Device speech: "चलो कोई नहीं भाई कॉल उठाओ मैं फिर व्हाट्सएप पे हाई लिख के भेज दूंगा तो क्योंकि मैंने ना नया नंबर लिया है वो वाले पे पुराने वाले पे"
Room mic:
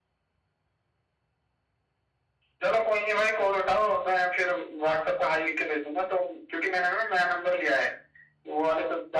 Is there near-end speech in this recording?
No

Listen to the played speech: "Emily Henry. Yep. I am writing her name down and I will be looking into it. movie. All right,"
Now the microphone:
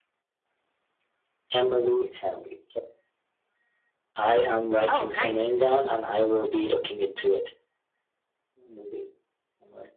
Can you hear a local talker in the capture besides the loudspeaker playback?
Yes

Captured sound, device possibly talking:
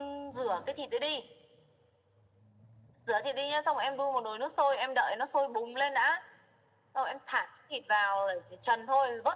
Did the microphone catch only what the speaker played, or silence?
Yes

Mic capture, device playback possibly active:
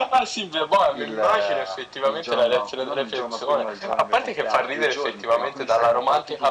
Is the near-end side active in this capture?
No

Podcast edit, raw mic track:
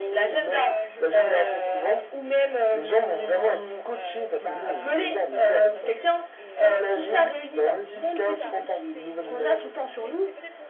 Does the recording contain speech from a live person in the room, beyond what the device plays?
Yes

